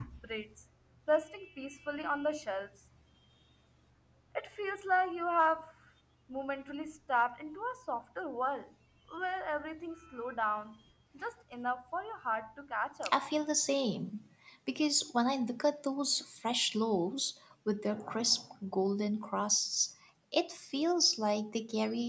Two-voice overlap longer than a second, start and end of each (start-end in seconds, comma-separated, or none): none